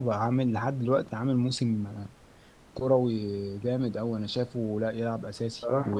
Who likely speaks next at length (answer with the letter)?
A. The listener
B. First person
B